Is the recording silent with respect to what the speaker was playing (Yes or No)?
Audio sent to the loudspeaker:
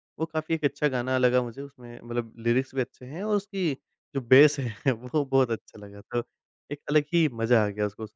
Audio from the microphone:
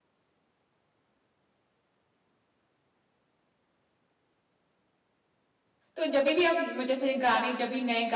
Yes